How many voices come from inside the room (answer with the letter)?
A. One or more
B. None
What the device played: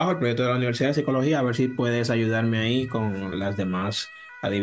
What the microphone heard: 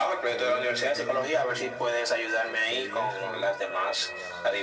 A